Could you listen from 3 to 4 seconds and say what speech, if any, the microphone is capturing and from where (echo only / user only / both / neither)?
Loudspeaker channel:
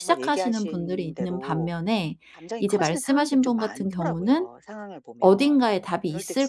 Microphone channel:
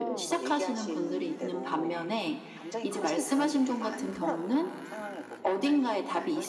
both